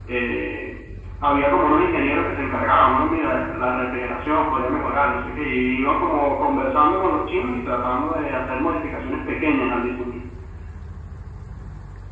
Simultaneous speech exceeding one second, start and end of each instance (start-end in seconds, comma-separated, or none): none